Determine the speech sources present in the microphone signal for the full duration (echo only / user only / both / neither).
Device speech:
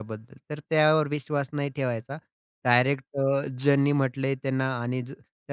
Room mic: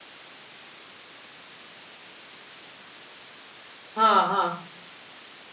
user only